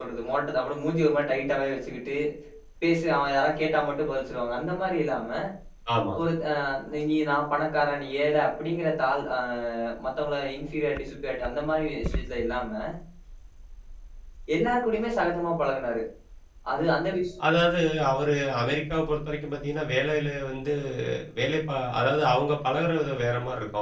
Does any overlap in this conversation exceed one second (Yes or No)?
No